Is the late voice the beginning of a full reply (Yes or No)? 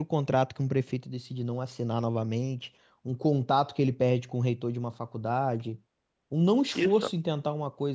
No